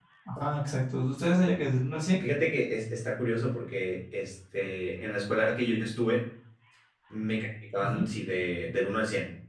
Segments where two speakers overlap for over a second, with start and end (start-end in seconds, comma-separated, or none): none